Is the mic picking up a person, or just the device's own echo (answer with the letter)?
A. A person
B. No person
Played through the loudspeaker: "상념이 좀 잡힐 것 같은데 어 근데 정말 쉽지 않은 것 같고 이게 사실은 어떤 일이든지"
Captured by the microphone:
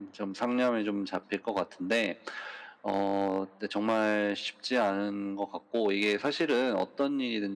B